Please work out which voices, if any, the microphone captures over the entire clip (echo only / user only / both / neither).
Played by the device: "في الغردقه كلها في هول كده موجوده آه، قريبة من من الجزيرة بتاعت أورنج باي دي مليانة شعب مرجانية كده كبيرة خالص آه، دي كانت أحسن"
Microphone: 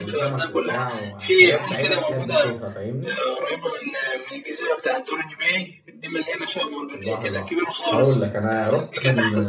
both